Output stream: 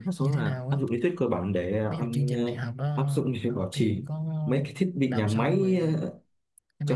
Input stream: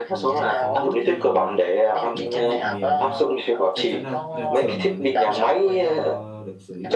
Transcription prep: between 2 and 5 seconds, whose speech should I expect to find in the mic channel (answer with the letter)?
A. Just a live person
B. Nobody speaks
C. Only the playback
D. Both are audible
D